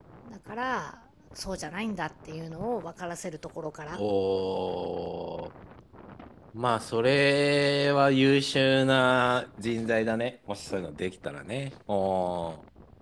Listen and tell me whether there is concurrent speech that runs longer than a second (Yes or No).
No